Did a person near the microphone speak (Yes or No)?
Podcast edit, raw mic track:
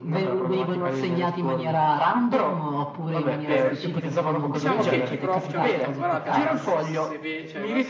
Yes